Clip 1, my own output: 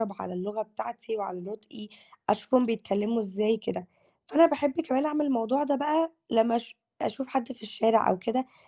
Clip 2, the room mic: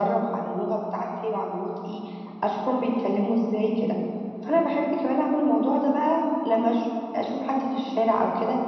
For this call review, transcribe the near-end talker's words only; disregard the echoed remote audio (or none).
none